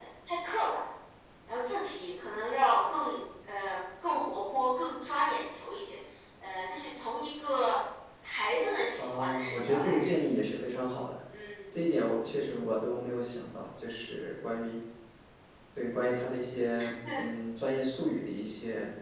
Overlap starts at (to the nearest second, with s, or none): 9 s